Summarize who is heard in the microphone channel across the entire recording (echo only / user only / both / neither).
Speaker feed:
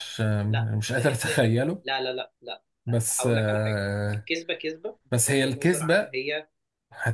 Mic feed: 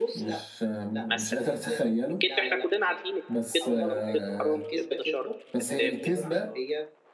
both